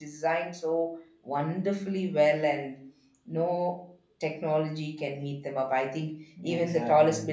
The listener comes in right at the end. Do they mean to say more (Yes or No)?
No